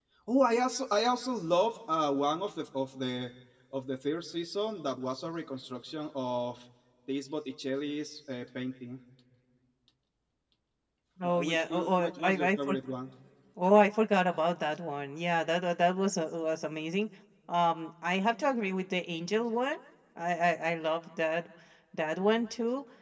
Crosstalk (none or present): present